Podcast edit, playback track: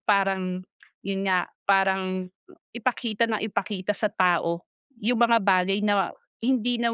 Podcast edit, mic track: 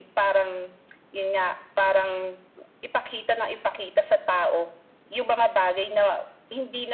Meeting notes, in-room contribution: none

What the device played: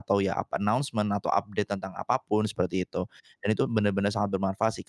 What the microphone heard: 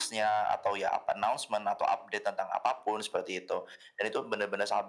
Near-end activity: none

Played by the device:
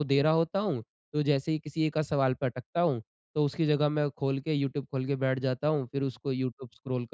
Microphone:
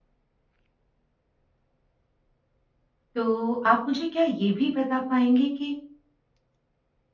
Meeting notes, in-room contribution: present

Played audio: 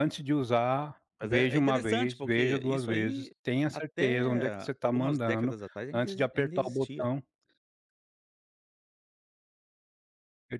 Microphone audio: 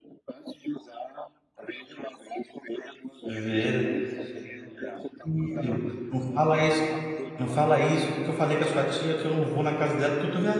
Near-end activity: present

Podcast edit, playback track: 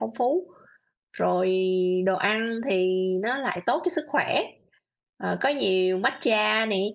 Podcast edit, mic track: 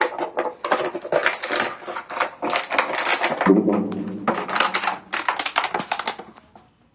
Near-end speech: present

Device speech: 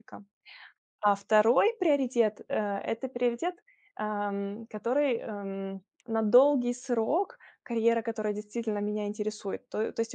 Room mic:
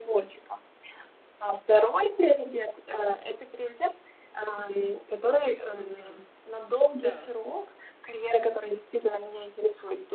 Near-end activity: present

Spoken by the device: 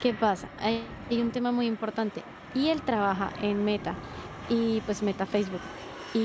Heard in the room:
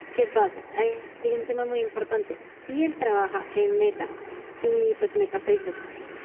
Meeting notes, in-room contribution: none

